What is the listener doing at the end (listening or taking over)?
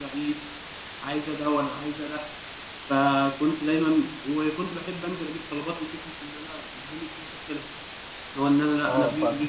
taking over